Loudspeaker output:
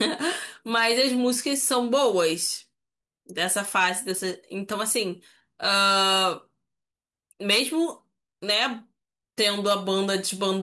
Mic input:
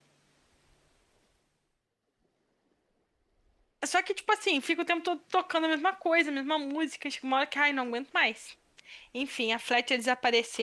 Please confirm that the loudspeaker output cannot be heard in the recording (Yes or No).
Yes